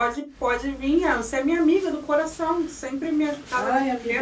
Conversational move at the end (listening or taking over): taking over